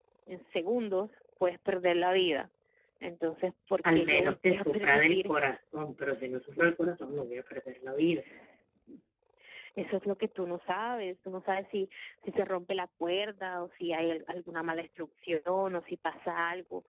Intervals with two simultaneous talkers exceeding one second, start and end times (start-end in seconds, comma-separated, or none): 3.9-5.3